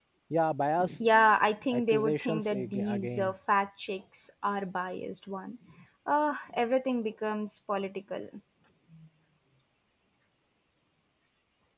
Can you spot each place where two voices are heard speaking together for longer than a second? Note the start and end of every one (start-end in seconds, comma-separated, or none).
1.7-3.3